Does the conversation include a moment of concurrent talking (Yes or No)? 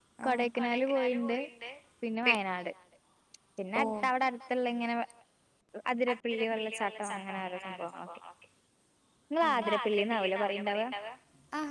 Yes